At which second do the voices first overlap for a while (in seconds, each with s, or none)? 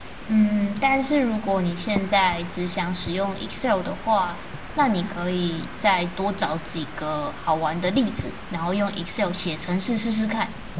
none